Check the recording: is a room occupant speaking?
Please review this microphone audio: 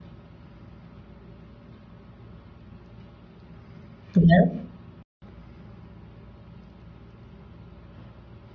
Yes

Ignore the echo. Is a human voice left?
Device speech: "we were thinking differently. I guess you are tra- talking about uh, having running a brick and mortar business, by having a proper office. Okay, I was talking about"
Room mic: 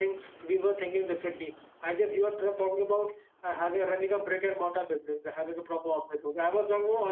No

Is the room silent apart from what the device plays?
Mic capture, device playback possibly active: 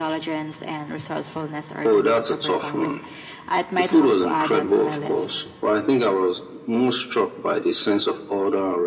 Yes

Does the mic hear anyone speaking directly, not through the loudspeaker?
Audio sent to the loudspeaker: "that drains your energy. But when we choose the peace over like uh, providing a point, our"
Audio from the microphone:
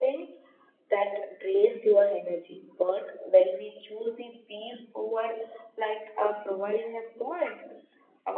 No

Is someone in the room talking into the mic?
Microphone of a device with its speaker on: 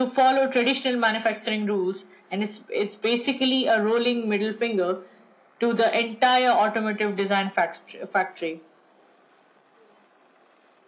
No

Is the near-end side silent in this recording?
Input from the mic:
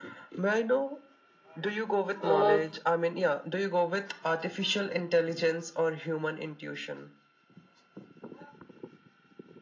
No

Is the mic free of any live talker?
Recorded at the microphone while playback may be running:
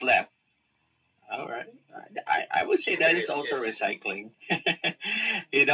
No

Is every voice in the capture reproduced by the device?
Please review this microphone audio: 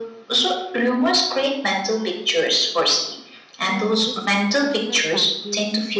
No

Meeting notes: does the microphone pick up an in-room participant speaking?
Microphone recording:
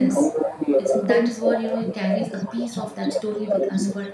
Yes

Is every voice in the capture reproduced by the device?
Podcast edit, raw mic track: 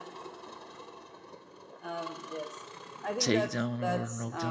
No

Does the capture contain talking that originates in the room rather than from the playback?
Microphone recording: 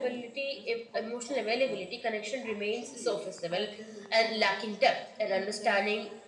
Yes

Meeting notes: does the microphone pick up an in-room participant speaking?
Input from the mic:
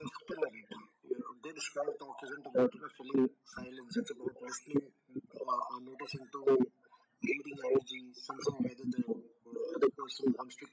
No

